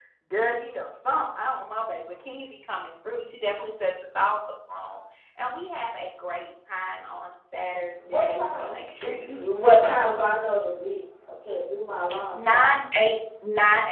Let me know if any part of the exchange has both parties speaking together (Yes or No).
Yes